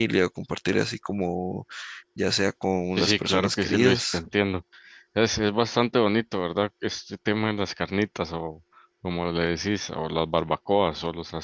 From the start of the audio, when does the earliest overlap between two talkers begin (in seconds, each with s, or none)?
3.0 s